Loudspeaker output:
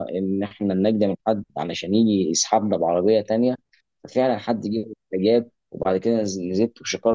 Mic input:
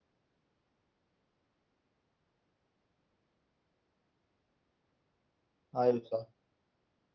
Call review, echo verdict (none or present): none